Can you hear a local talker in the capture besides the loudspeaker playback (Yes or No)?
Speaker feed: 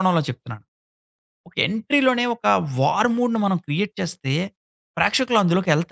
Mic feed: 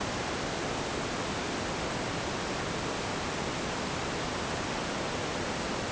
No